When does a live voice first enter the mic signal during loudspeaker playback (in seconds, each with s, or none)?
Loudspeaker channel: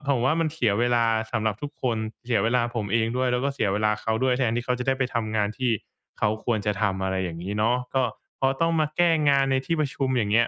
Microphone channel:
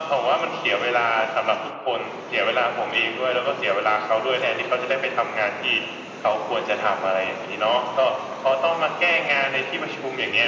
none